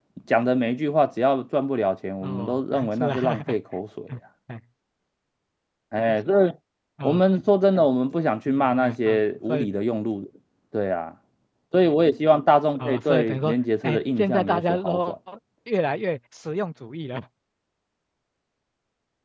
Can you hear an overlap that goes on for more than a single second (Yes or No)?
Yes